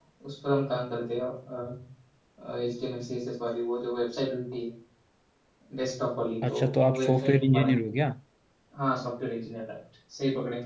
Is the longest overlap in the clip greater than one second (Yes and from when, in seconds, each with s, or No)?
Yes, from 6.5 s